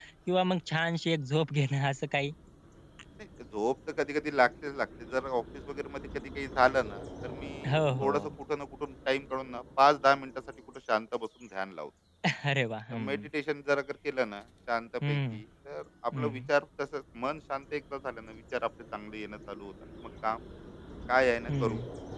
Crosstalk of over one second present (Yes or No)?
No